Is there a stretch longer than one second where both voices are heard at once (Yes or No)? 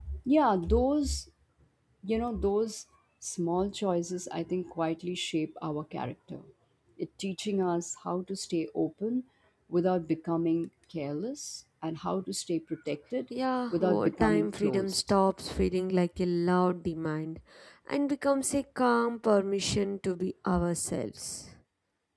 Yes